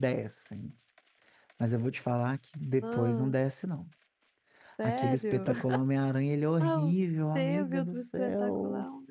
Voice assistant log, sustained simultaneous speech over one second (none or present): present